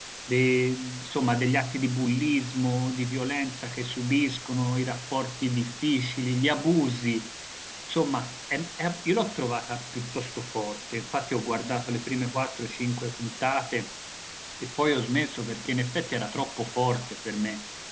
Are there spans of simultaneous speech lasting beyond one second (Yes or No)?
No